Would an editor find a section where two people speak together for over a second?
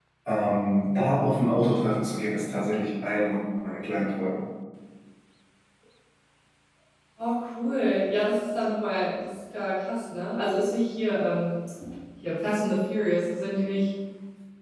No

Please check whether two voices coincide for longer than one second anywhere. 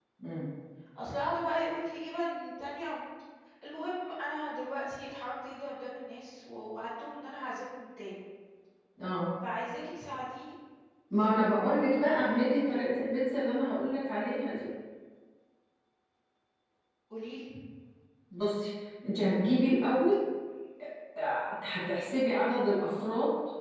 No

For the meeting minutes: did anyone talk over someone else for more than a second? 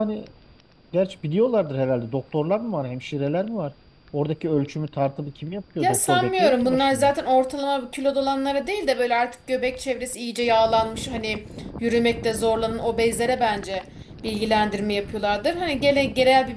Yes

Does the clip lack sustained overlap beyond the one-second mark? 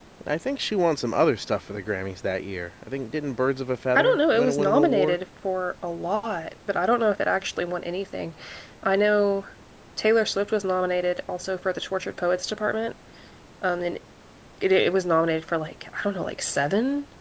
No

